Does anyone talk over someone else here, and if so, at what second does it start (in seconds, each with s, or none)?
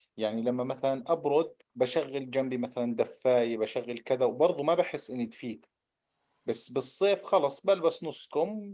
none